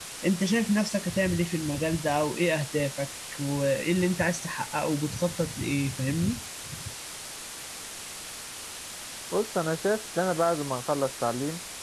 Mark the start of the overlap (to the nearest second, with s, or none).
none